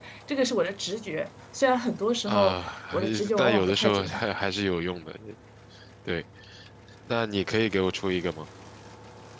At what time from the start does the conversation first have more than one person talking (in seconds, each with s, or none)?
2.3 s